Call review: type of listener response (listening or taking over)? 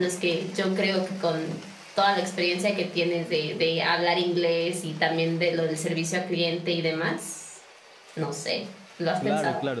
taking over